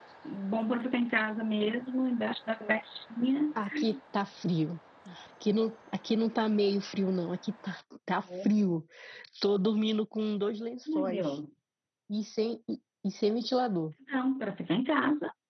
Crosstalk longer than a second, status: none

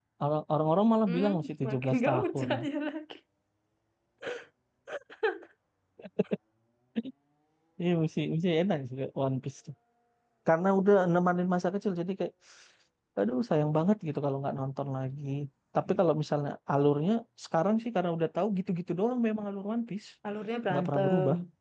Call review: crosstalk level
present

